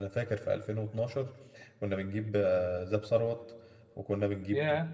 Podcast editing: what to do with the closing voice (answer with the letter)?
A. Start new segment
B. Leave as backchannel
B